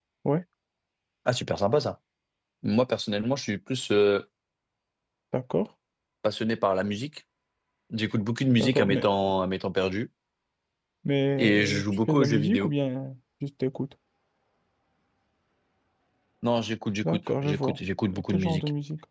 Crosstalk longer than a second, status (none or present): present